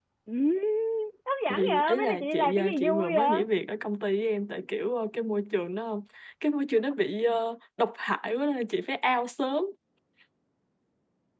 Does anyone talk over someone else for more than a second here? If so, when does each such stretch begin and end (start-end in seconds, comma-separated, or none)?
1.5-3.4